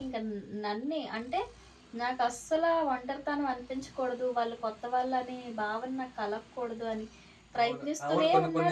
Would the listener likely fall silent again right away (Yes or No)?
No